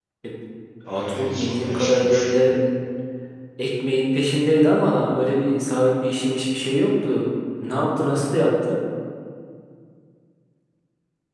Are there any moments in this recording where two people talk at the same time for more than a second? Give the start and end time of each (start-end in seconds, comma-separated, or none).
0.9-2.3